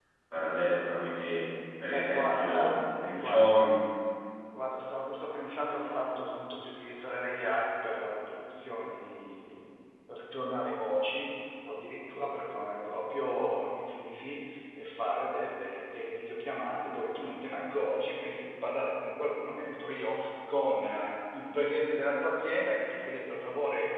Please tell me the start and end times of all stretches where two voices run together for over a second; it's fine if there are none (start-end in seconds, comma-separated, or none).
1.9-3.7